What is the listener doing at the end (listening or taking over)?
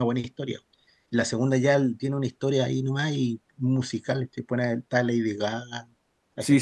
taking over